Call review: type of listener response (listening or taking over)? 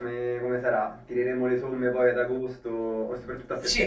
taking over